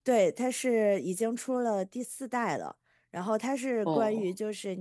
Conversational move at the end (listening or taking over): listening